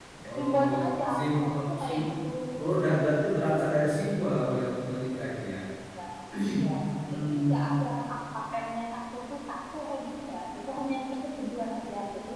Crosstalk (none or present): present